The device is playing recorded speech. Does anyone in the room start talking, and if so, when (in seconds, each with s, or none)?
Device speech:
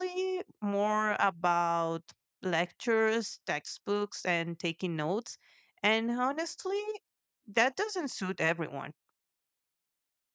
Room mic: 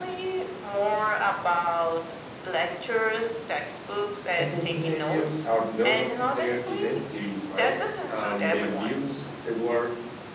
4.4 s